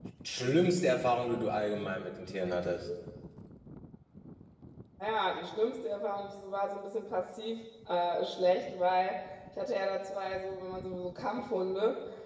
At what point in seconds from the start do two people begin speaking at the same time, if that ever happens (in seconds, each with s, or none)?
none